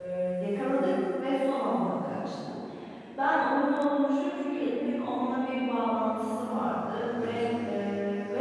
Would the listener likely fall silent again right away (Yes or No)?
Yes